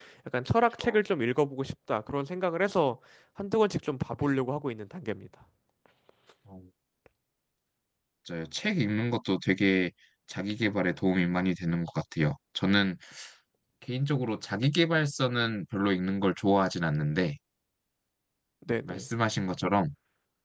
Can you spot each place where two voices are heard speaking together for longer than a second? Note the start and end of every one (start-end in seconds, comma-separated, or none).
none